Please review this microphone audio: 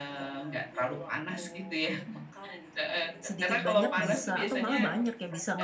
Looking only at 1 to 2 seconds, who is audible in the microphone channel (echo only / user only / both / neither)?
echo only